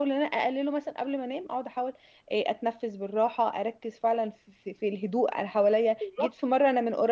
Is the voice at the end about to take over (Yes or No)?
No